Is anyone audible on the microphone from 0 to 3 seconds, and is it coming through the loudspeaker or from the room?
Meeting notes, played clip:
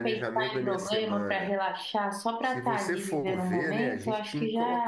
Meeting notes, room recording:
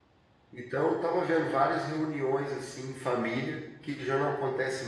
user only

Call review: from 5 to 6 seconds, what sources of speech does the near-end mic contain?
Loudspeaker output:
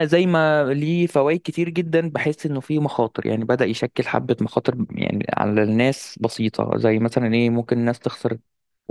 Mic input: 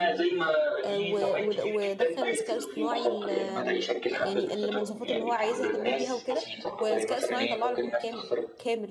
both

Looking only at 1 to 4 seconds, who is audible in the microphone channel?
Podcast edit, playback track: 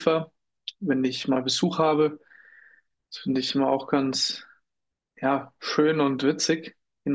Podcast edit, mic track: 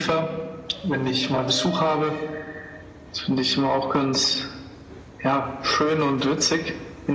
echo only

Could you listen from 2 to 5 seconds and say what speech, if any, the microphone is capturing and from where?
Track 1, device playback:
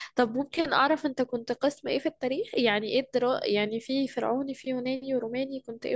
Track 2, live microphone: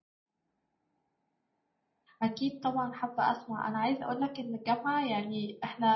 user only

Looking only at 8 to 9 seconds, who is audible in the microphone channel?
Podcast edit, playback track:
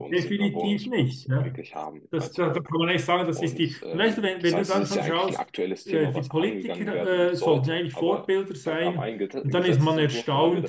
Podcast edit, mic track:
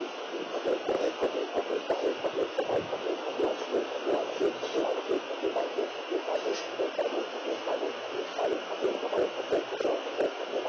neither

